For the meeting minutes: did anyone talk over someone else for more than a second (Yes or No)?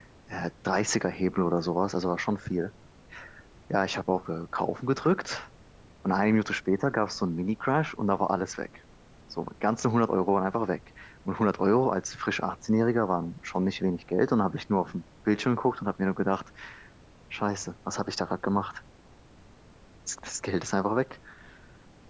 No